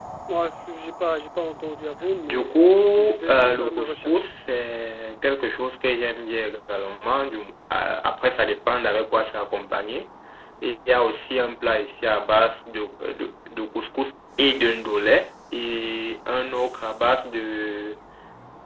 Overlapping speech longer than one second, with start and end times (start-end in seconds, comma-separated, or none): 2.2-4.2